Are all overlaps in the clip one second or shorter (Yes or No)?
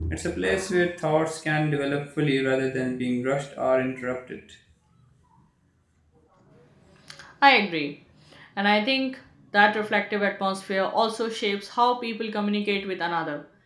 Yes